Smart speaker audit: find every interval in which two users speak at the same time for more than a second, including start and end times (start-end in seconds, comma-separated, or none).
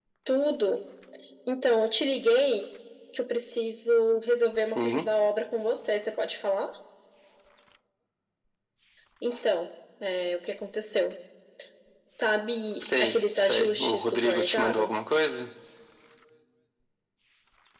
12.8-14.9